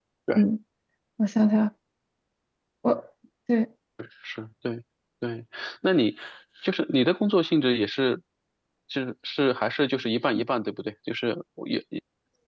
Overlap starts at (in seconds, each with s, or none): none